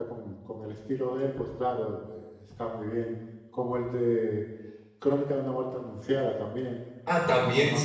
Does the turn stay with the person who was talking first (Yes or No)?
No